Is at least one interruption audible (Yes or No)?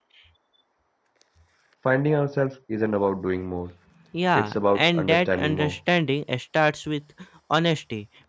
Yes